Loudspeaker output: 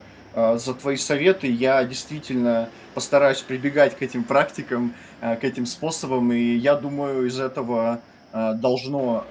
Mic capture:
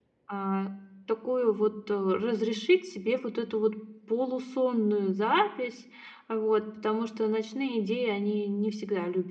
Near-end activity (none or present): present